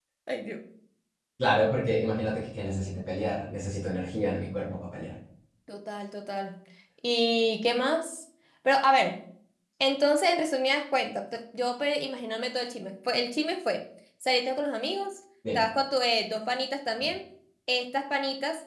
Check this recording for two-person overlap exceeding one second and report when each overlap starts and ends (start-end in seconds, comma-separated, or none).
none